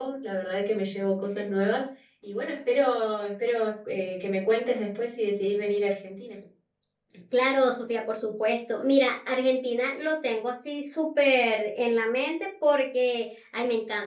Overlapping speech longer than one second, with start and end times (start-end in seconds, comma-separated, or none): none